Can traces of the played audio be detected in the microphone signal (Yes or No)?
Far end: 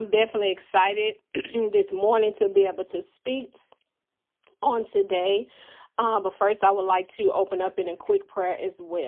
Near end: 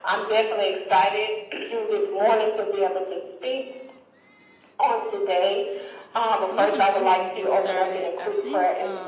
Yes